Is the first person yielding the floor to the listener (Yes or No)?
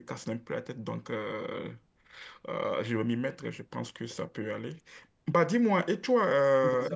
No